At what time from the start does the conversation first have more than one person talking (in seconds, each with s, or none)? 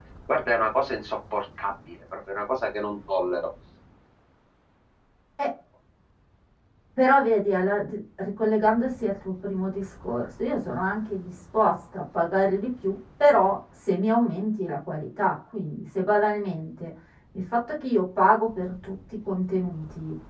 none